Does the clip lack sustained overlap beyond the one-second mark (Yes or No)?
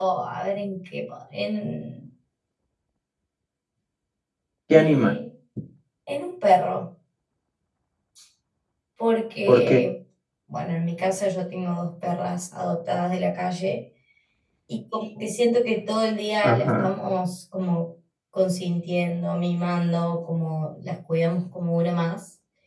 Yes